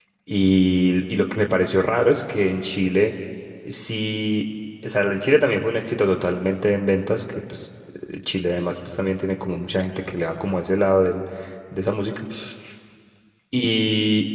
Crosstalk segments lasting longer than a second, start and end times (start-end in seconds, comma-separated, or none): none